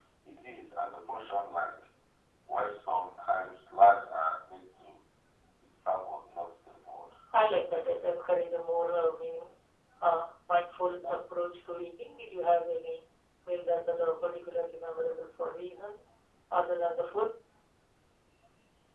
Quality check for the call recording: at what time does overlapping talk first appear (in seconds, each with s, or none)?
none